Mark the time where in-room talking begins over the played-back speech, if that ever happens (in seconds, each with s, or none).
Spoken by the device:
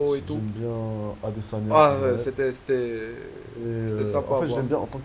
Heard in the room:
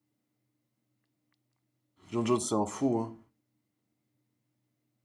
2.1 s